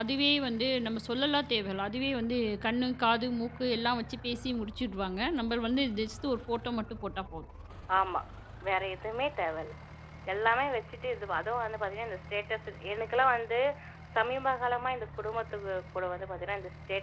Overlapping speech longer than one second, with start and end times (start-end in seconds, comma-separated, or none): none